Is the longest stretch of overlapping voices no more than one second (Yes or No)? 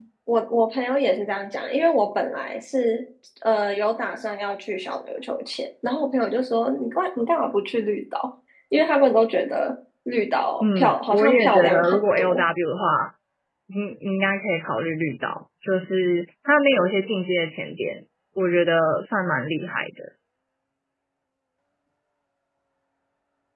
No